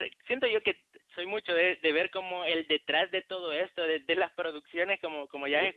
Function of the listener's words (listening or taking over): listening